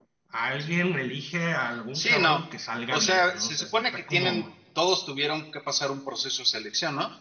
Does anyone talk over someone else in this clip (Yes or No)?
Yes